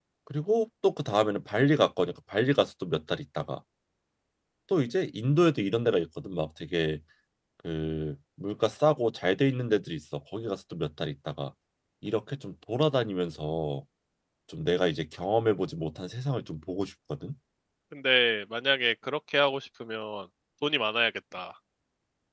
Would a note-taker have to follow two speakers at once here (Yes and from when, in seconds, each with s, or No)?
No